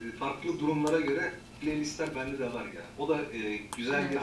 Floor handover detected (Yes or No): No